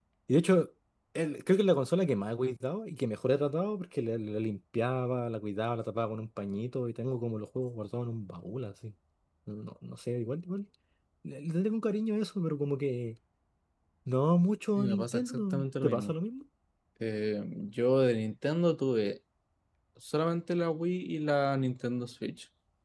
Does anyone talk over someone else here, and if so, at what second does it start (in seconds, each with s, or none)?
14.8 s